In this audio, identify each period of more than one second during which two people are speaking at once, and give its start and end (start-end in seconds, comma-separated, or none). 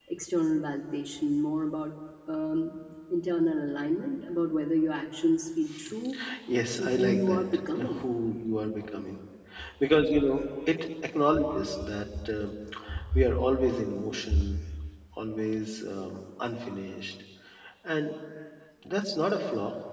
6.8-8.0